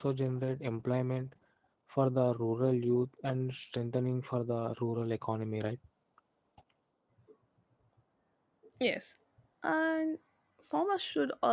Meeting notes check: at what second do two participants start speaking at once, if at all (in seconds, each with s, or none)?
none